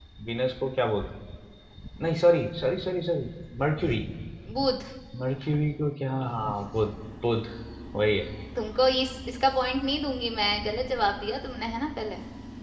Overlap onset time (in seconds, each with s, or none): none